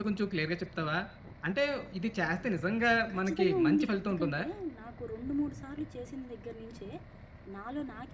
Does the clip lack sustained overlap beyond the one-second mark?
No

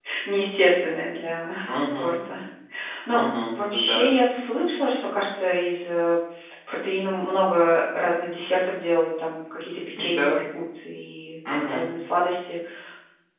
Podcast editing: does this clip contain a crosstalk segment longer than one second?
No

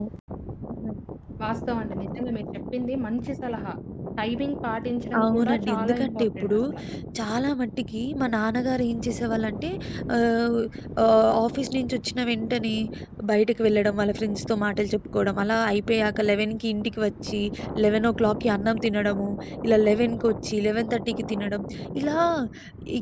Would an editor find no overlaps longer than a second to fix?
No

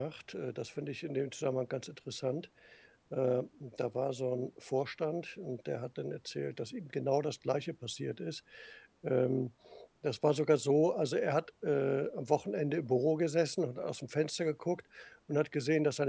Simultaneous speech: No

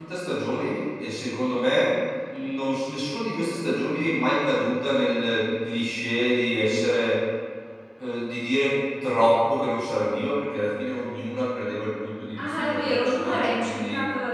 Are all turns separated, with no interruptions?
No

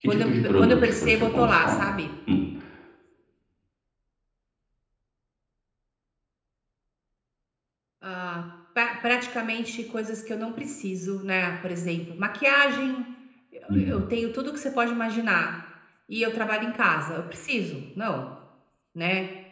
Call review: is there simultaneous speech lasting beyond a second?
Yes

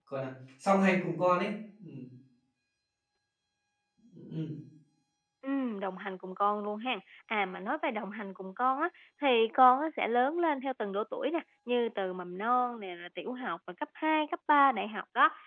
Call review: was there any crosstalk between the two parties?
No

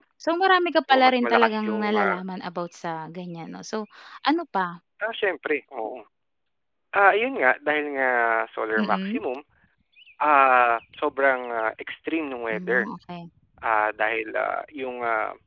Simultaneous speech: Yes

